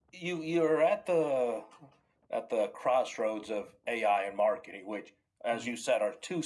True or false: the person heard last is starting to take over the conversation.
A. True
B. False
B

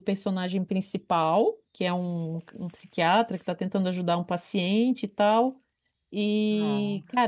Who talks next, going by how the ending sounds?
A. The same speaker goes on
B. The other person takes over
A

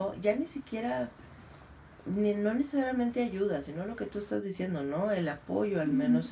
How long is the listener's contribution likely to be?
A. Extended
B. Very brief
A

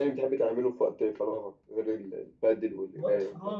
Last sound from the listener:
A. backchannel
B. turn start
B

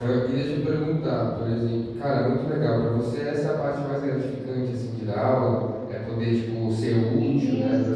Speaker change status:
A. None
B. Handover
A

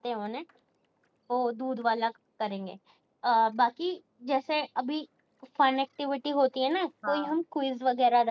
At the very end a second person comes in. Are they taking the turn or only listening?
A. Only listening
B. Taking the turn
A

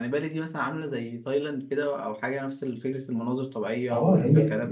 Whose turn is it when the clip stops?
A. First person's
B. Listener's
B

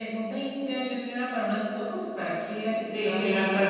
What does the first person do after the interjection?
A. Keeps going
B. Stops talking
B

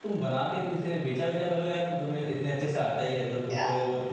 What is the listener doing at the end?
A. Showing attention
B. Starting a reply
A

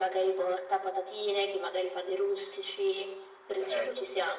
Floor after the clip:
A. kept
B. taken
B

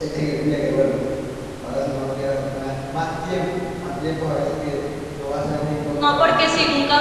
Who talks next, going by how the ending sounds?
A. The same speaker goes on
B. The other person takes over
B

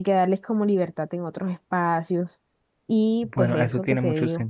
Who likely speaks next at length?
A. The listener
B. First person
A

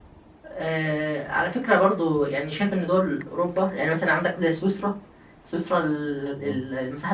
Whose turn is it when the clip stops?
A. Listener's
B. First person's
B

